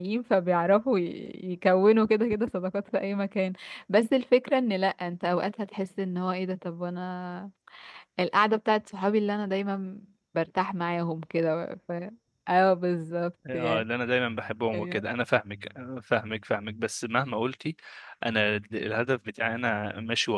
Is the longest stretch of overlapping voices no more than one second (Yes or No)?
Yes